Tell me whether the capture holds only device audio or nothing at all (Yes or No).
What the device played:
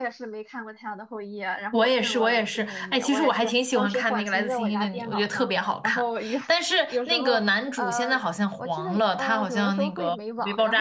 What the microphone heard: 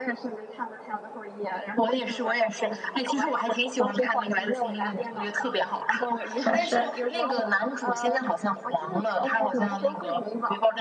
No